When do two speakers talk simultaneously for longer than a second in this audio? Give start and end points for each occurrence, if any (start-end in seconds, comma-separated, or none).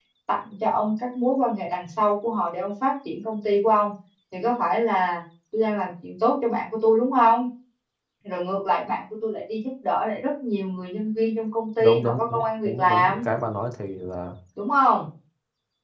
11.8-13.2